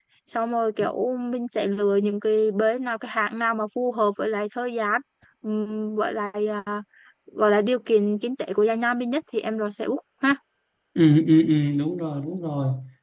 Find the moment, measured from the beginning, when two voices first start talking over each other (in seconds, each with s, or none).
none